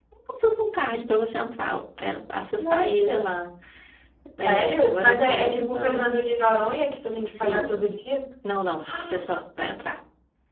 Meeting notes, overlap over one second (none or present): present